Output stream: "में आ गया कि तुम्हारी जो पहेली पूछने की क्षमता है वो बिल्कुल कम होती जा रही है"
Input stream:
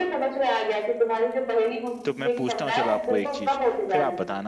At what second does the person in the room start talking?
2.0 s

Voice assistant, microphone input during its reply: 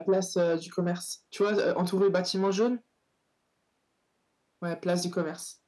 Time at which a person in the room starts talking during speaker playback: none

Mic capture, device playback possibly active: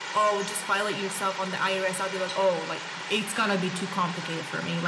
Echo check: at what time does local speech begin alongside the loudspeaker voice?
none

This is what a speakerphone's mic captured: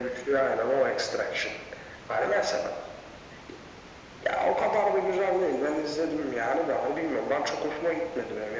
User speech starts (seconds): none

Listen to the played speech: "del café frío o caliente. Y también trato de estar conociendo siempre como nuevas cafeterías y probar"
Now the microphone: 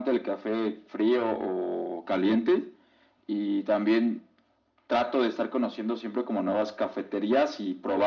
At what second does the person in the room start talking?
none

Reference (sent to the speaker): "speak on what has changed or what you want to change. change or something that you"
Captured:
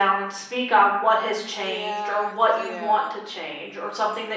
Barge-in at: 1.3 s

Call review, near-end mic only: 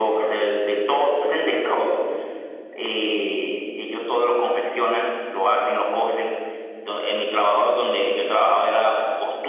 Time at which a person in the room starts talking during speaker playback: none

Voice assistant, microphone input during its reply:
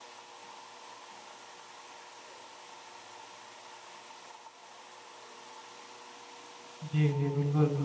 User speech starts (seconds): 6.8 s

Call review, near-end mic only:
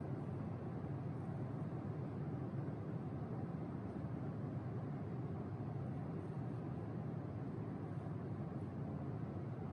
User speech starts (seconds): none

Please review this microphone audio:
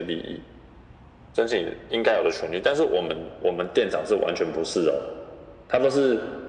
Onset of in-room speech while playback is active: none

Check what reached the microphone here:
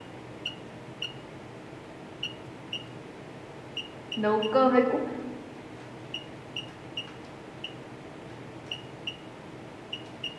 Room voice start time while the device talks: 4.1 s

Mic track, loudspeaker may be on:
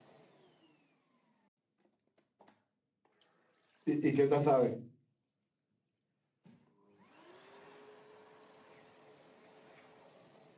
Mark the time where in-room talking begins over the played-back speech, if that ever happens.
3.8 s

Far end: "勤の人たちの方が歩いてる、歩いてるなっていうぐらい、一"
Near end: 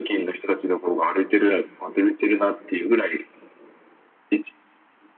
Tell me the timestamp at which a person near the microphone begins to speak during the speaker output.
none

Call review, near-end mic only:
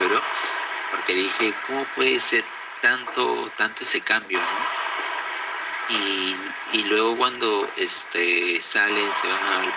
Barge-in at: none

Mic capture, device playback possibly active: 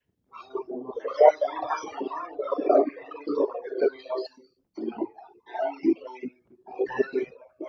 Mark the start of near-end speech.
none

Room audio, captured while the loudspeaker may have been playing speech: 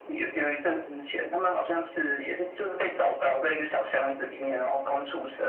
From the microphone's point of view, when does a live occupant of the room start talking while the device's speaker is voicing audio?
none

